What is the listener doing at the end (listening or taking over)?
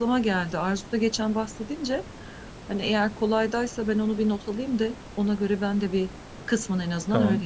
taking over